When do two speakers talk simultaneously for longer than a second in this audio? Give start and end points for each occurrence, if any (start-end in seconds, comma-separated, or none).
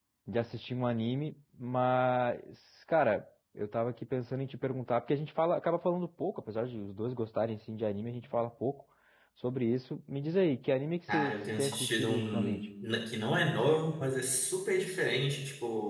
11.1-12.6